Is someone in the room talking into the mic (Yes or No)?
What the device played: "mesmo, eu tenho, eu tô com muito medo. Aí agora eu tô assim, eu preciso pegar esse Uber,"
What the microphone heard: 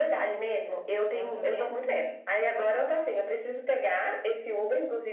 Yes